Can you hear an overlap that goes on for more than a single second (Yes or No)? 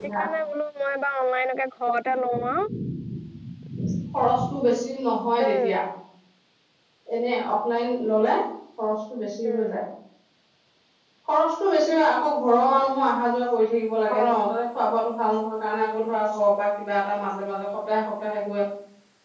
No